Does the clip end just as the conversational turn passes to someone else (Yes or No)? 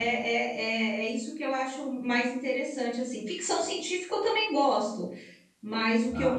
No